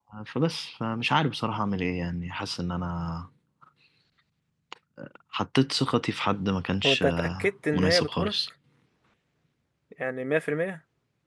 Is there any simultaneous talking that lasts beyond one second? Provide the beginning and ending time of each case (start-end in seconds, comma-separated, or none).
6.8-8.3